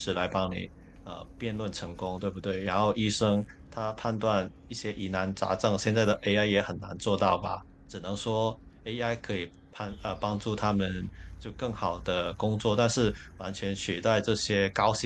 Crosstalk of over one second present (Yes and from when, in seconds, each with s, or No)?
No